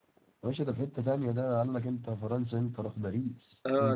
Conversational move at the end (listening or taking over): taking over